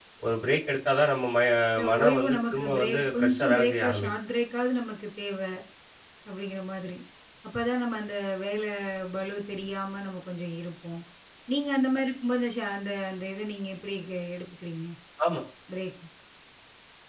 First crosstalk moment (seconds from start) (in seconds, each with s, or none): 1.9 s